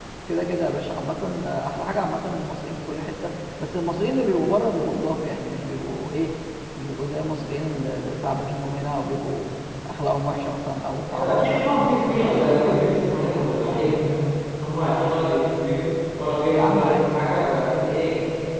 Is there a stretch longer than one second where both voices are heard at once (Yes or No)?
Yes